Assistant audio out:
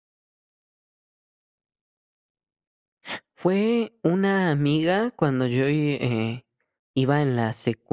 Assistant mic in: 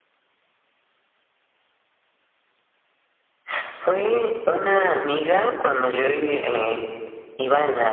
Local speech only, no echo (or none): none